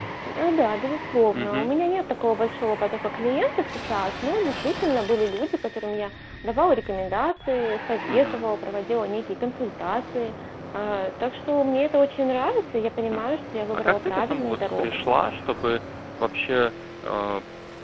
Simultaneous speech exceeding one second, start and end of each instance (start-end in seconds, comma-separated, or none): 13.7-15.1